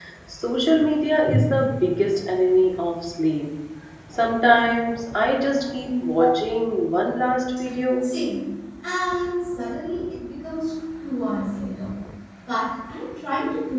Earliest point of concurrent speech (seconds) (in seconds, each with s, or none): none